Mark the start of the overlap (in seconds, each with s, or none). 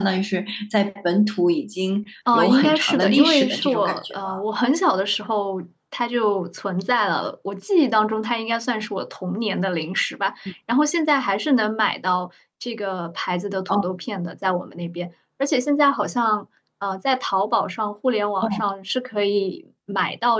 2.3 s